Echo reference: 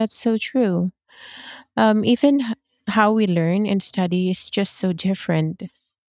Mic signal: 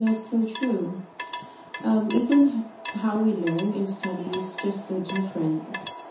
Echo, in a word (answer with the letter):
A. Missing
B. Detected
B